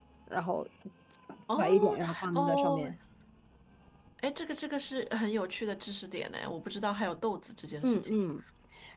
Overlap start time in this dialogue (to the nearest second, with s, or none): 2 s